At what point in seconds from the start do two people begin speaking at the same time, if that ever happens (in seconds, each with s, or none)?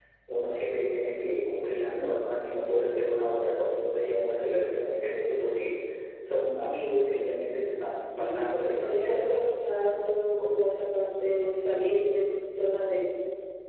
8.1 s